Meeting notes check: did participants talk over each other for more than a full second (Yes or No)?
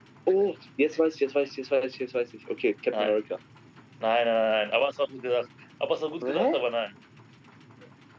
No